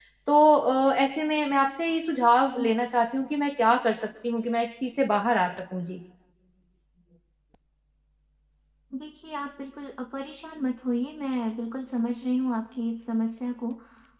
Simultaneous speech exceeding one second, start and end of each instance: none

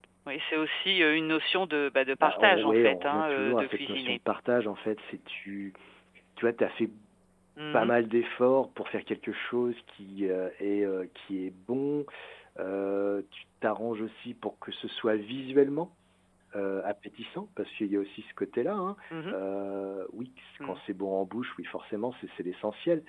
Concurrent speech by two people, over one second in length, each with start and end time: 2.2-4.2

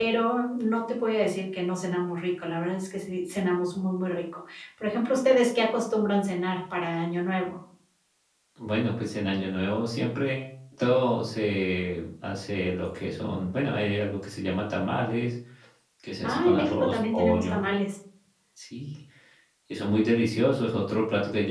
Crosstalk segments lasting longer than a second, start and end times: 16.2-17.6

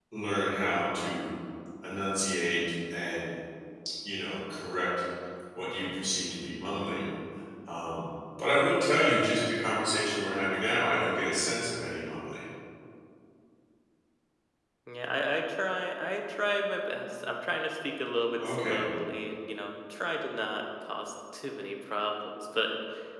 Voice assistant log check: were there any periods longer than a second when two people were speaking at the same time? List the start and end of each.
none

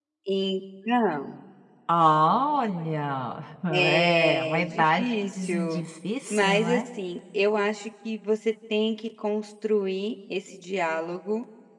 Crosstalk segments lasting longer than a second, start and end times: 3.7-5.8

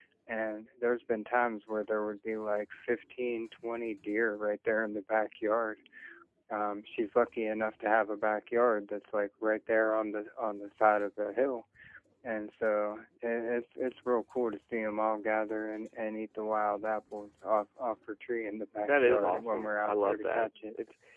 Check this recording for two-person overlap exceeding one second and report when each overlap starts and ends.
18.9-20.5

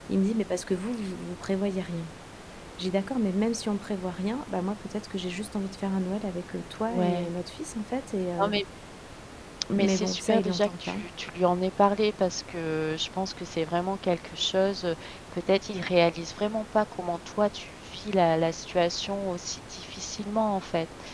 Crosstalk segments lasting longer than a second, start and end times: 9.8-11.0

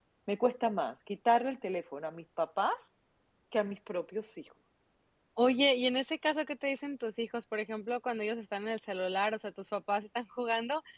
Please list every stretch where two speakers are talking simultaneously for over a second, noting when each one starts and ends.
none

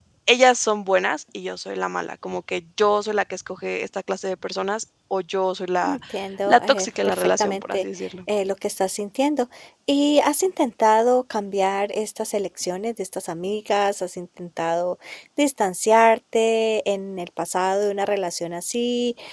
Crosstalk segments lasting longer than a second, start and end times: 6.5-7.8

